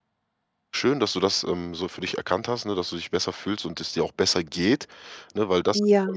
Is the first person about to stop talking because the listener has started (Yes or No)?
No